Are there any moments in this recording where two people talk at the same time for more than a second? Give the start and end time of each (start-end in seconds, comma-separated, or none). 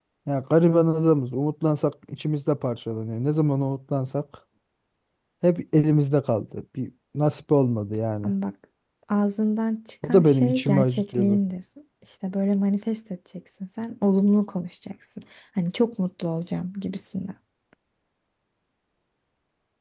10.0-11.4